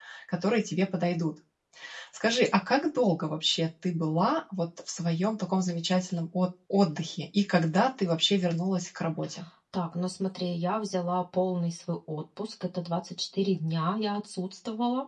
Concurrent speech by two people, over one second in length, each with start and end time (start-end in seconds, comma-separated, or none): none